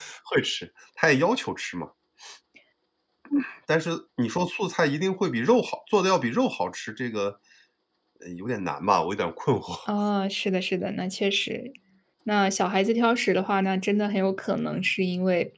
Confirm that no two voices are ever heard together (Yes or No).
Yes